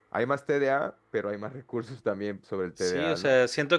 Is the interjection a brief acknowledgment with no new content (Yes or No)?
No